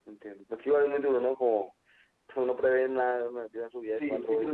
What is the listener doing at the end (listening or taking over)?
taking over